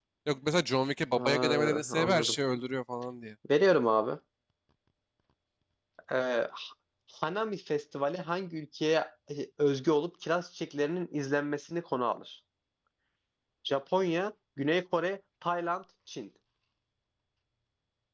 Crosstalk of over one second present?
Yes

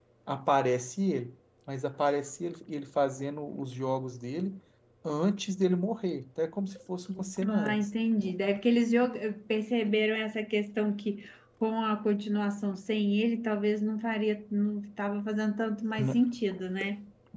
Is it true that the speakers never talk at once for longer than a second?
Yes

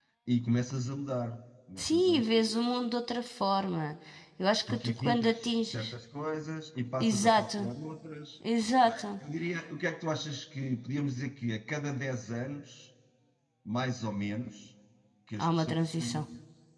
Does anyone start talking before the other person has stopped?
Yes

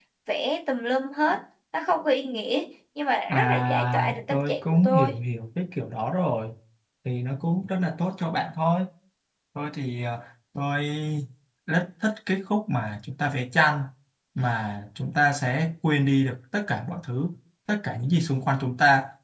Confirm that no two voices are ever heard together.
No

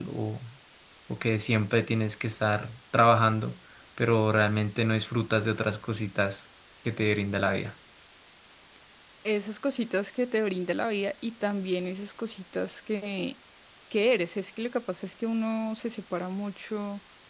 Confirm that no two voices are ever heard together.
Yes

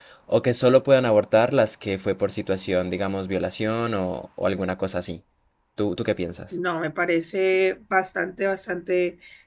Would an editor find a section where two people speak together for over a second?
No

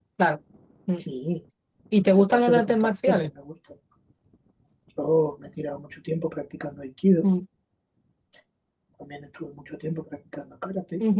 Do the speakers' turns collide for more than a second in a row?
Yes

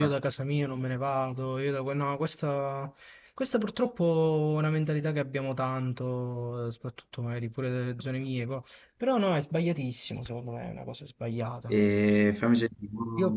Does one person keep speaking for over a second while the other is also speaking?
No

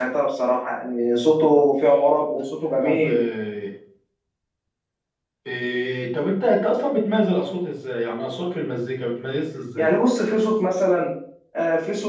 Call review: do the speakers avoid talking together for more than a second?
Yes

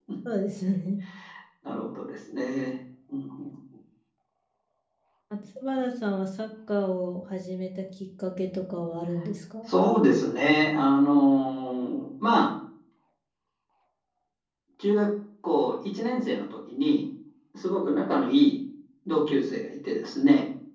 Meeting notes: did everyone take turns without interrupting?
Yes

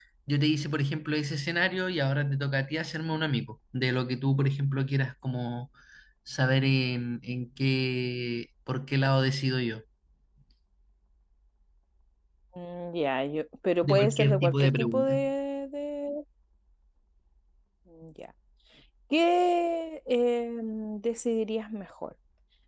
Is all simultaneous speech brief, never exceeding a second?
No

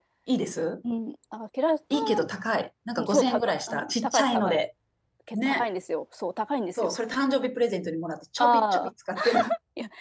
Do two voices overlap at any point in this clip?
Yes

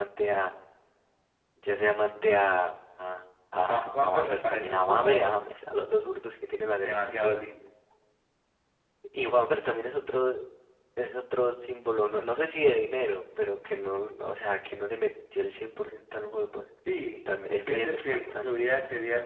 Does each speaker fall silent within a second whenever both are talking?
No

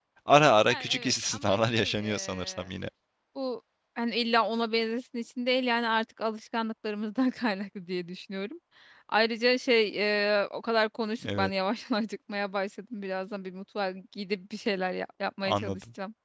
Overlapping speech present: Yes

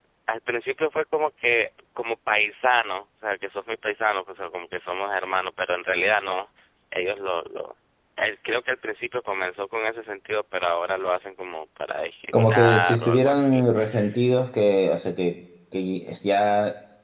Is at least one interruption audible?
Yes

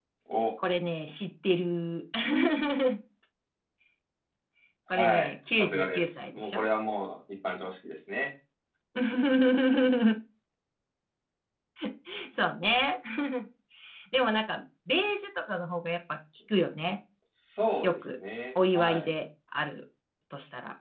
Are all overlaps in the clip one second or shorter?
No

